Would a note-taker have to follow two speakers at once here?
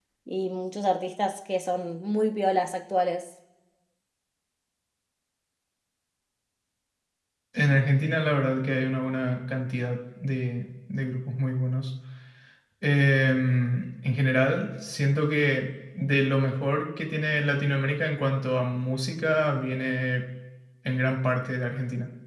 No

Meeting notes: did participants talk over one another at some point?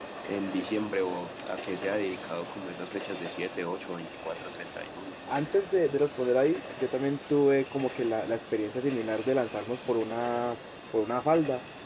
No

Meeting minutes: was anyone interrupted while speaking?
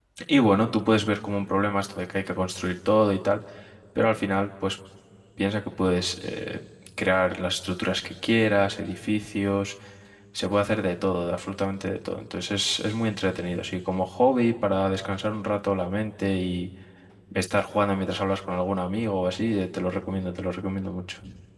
No

